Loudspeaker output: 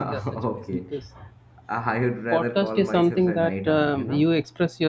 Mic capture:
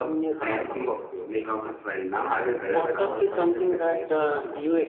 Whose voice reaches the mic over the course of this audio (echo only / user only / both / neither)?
both